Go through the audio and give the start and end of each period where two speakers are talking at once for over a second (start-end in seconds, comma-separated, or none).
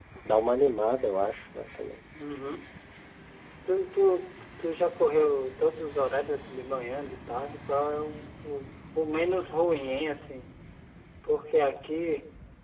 none